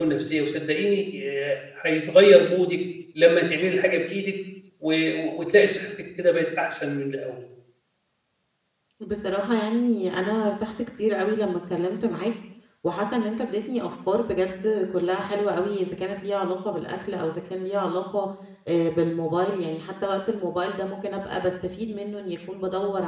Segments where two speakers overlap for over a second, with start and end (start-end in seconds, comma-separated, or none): none